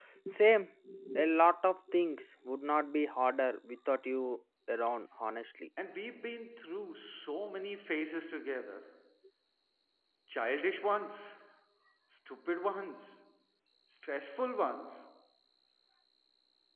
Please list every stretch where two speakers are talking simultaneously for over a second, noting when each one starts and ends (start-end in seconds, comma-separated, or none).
none